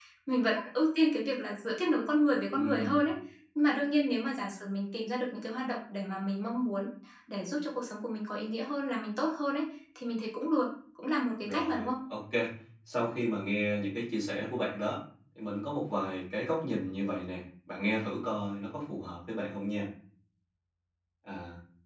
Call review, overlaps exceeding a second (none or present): none